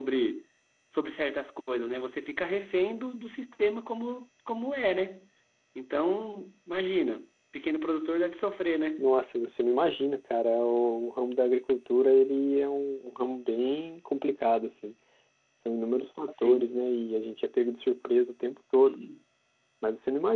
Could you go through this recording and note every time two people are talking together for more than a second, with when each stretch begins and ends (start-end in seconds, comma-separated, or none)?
none